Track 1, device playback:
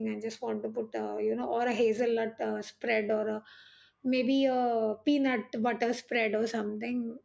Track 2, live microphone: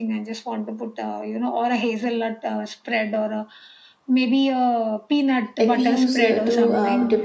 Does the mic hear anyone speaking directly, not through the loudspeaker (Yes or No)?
Yes